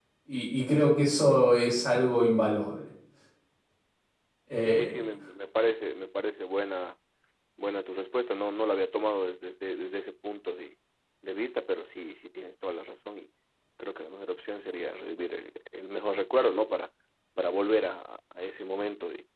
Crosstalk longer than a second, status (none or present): none